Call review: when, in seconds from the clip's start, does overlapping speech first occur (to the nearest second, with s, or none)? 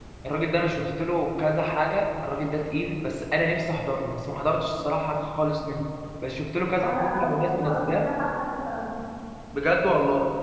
7 s